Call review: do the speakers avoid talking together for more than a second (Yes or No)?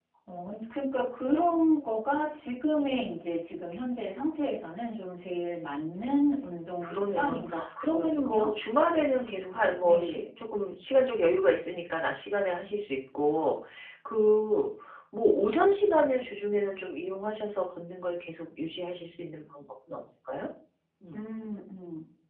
No